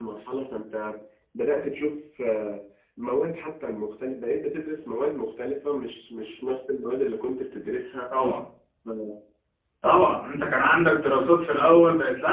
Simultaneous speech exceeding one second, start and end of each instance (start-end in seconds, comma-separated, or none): none